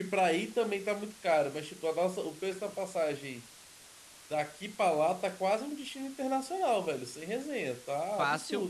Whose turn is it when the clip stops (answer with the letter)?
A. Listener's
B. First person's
A